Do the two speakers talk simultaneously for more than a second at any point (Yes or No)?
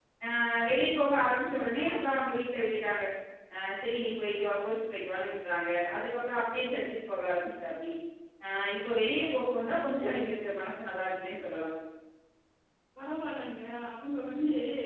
No